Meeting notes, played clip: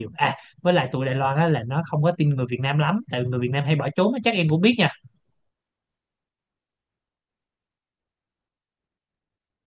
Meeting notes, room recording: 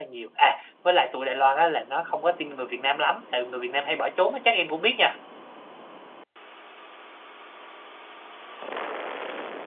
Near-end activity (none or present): none